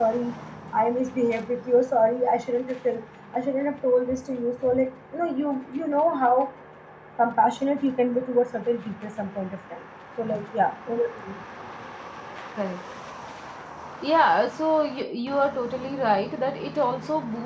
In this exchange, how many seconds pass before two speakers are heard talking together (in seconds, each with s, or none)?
none